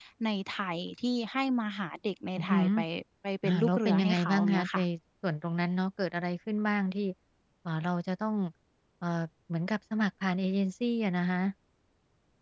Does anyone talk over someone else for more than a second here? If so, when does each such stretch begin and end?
3.4-4.8

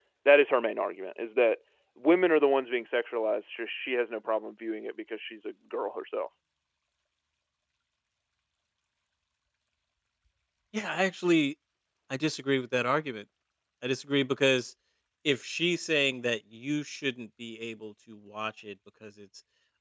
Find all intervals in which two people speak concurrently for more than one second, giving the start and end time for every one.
none

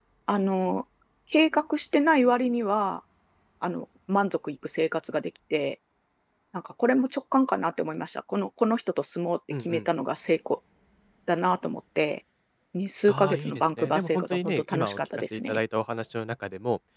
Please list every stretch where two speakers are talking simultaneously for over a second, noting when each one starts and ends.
13.1-15.6

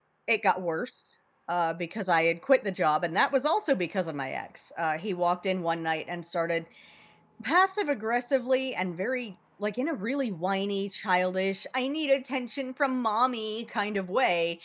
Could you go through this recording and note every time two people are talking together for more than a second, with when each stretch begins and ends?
none

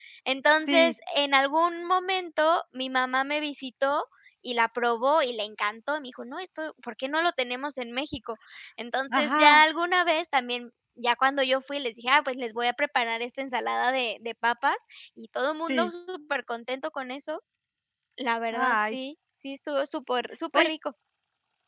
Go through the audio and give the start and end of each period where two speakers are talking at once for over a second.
none

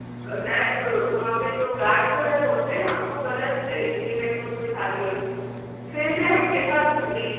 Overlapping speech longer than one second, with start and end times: none

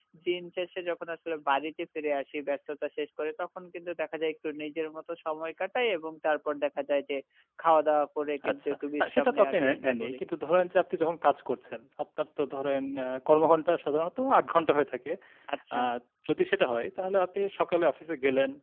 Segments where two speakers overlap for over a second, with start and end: 8.5-10.2

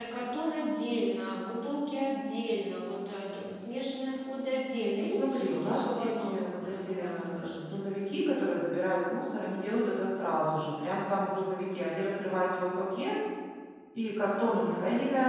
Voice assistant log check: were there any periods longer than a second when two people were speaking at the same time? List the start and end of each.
5.0-7.5

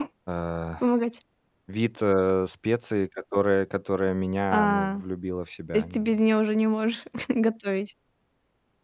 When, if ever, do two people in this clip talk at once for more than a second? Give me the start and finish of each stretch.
none

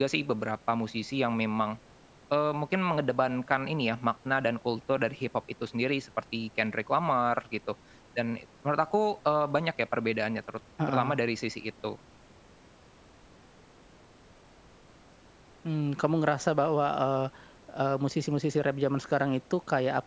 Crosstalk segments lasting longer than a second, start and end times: none

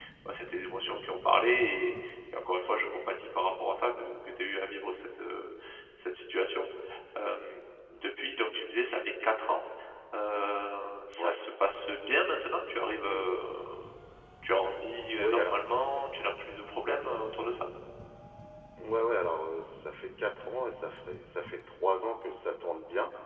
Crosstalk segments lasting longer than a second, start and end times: none

